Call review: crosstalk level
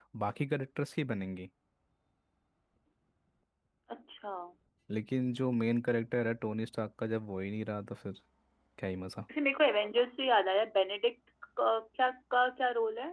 none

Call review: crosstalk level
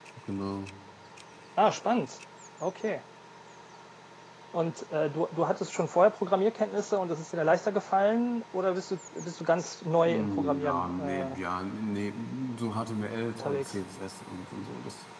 present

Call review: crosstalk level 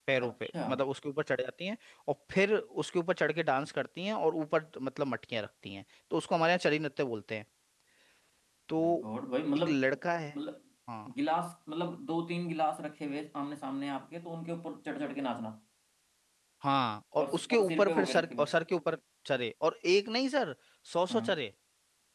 present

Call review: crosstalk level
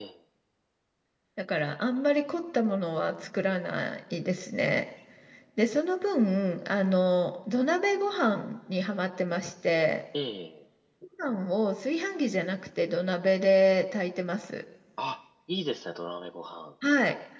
none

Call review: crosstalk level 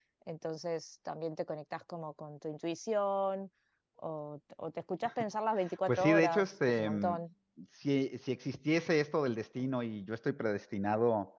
present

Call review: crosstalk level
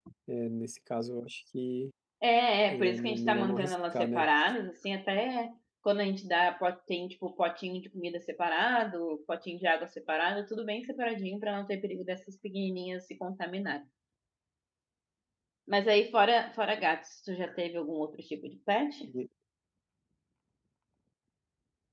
present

